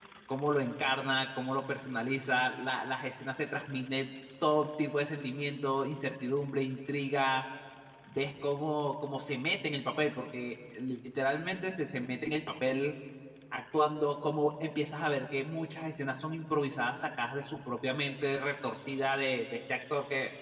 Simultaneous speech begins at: none

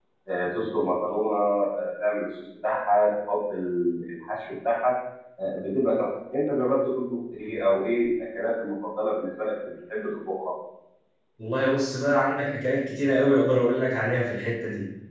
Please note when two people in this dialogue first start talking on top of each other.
none

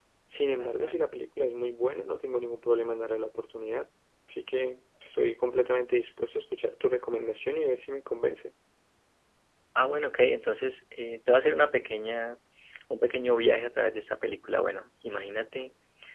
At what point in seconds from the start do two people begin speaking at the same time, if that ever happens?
none

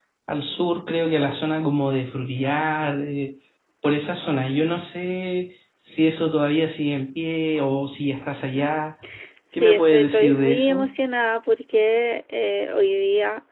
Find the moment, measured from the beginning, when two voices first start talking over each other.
9.5 s

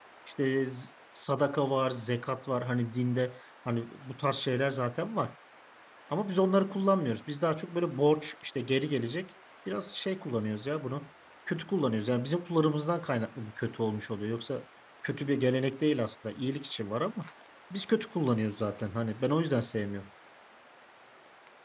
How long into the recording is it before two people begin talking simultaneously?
none

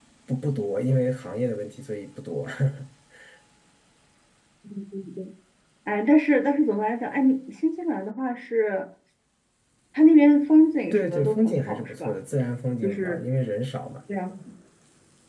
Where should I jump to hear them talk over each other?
10.9 s

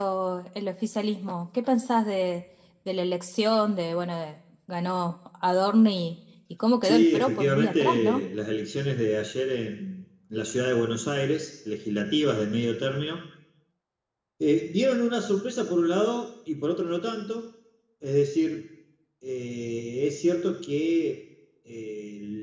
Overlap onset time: 6.8 s

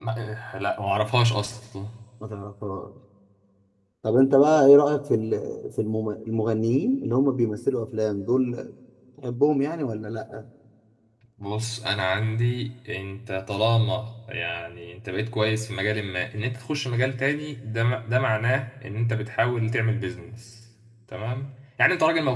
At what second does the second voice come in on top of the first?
none

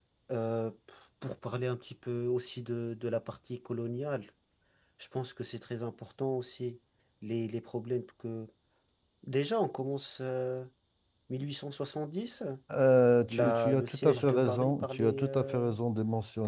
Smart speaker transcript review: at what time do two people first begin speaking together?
13.3 s

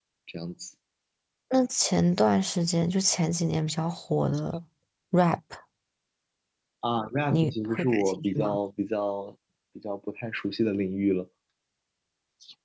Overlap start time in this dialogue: 7.3 s

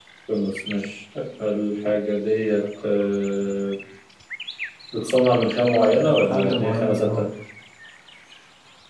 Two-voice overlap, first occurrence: 5.8 s

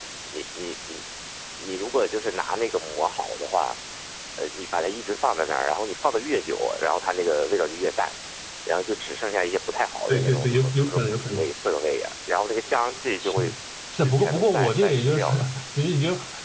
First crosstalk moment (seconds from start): 10.1 s

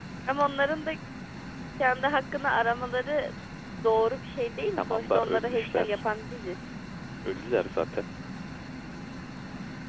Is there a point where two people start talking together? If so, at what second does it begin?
4.8 s

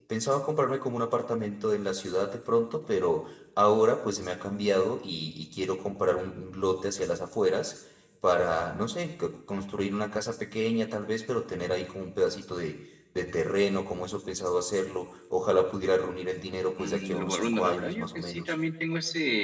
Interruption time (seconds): 16.8 s

